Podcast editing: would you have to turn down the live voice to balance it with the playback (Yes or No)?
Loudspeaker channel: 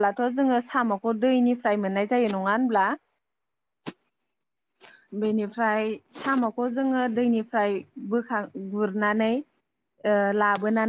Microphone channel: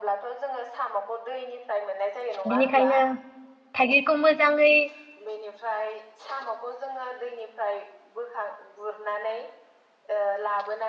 Yes